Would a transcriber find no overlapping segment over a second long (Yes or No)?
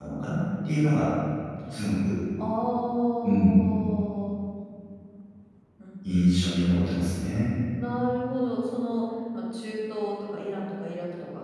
Yes